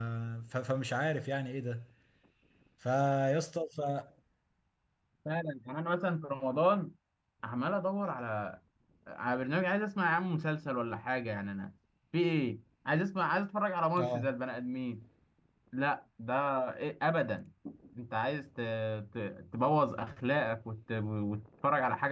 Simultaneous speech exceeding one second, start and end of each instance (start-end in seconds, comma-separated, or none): none